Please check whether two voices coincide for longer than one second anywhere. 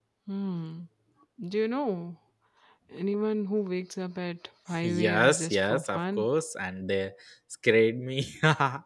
Yes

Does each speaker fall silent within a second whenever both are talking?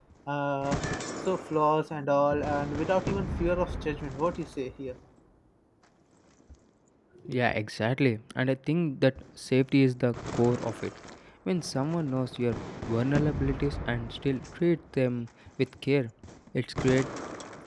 Yes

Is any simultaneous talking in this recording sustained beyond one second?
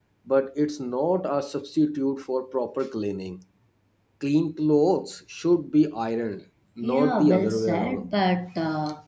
Yes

